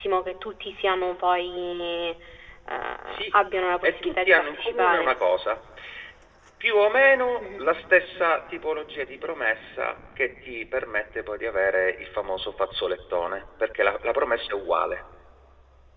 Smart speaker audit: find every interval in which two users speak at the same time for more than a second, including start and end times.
3.8-5.1

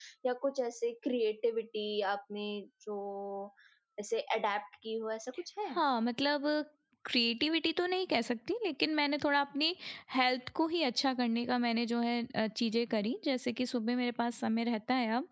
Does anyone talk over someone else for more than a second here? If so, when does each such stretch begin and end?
none

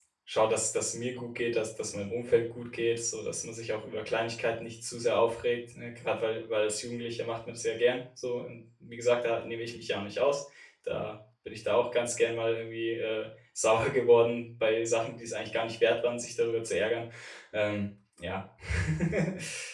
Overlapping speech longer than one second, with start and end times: none

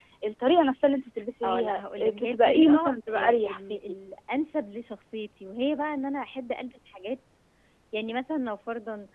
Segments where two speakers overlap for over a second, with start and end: 1.4-3.8

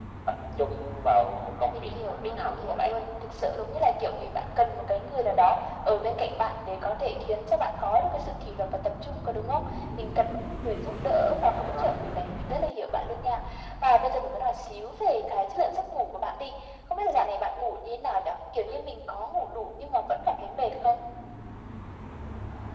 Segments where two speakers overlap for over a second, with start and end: 1.7-2.9

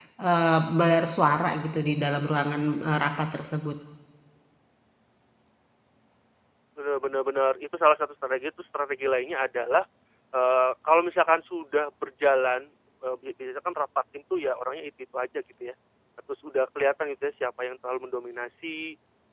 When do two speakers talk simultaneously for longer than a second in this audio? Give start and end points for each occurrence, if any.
none

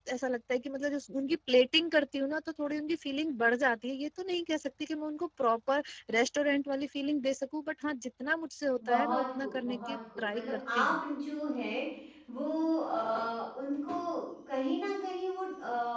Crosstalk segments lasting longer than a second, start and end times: 8.9-10.9

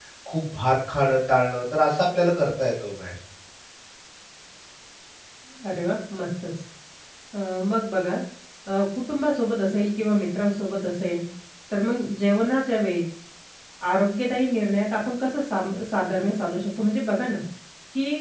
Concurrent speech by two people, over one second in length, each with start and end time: none

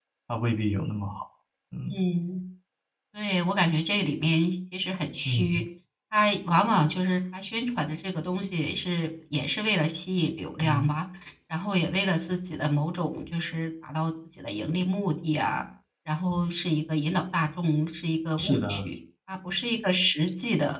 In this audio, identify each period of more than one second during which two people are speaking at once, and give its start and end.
none

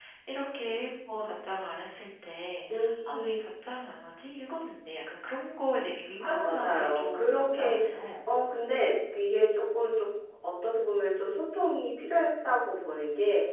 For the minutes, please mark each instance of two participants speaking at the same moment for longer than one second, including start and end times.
6.2-7.8

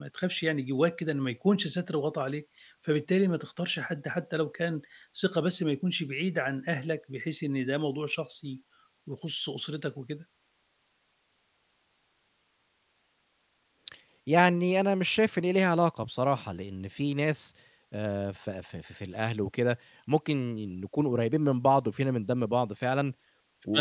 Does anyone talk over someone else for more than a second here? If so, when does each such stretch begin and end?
none

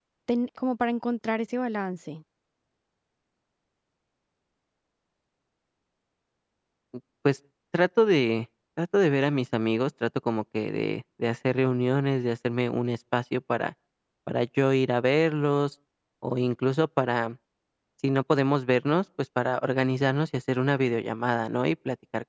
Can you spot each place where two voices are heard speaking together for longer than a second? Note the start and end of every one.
none

